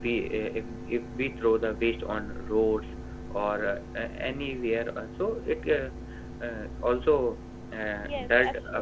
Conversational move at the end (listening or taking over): taking over